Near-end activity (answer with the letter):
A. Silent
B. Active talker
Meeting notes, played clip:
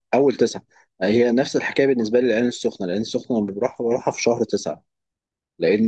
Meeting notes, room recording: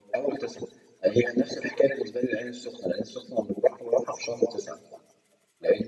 A